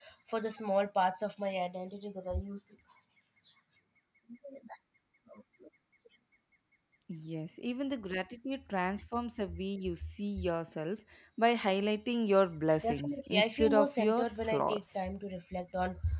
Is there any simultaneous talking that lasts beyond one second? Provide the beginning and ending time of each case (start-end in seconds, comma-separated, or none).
12.8-15.0